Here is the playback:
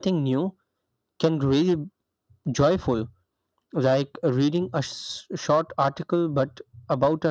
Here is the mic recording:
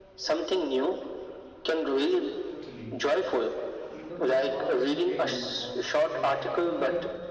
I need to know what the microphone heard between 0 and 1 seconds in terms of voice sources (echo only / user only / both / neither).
echo only